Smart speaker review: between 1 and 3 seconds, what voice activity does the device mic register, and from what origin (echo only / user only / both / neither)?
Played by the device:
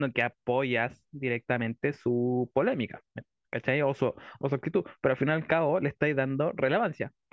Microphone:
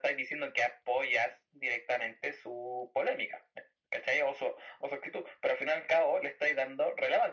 echo only